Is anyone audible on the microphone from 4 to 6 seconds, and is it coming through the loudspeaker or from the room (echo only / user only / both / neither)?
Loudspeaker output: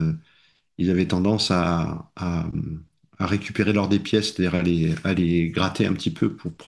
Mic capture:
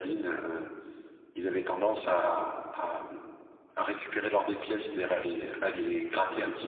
echo only